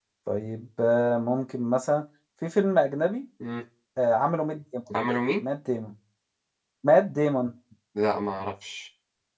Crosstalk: none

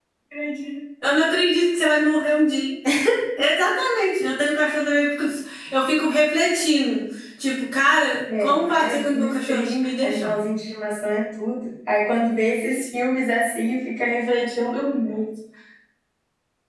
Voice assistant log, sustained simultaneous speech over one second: present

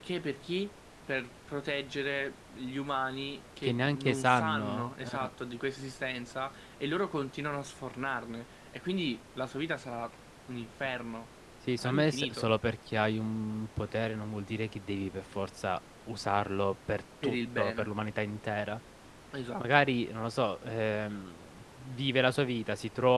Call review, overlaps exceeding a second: present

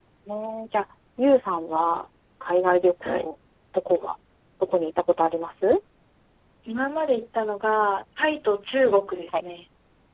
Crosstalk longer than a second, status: none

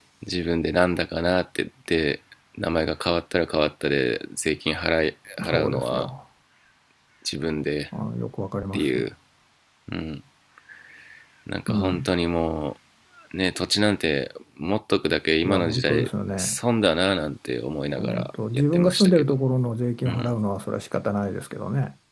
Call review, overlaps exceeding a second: present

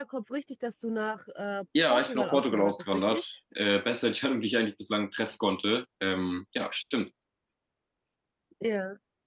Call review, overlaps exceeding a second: present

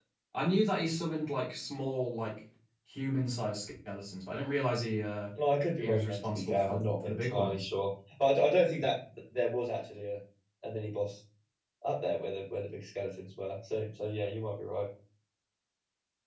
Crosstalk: present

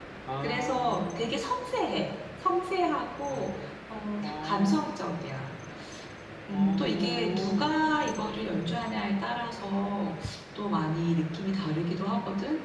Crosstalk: present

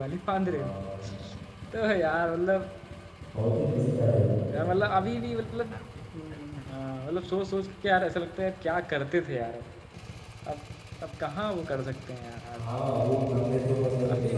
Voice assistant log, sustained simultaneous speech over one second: none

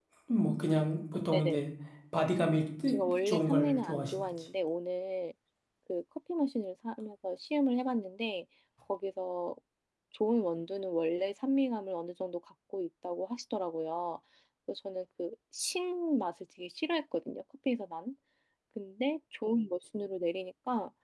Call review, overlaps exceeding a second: present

